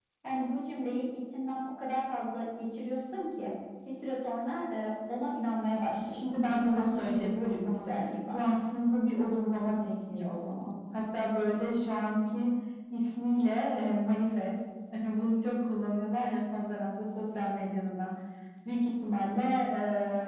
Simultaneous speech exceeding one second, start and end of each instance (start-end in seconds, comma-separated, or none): 6.0-7.9